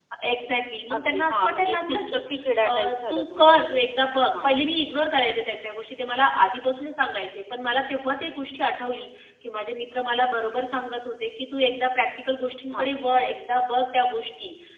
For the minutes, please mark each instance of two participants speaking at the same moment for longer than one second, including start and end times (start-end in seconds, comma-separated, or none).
1.0-2.2, 2.6-3.8